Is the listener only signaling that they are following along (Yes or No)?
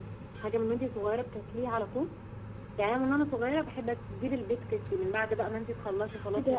No